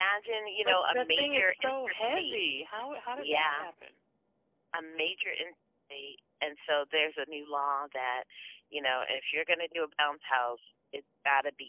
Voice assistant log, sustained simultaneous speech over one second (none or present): present